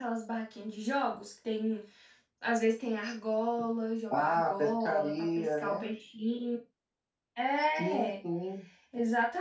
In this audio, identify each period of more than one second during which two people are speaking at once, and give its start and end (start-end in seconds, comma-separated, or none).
4.1-5.8